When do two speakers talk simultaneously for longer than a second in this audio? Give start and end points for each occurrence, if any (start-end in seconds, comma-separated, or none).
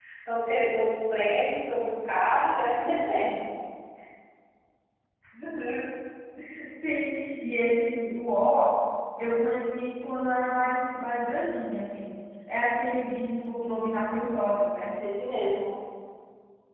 none